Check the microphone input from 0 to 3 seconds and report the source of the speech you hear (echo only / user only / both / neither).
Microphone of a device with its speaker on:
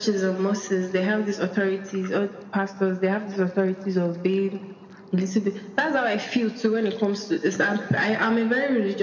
echo only